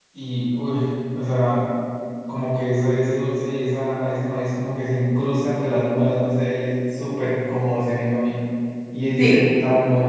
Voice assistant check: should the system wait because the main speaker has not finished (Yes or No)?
Yes